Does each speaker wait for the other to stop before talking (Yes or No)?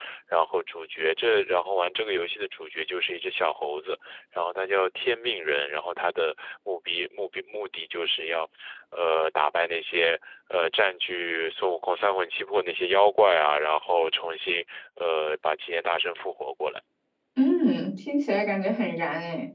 Yes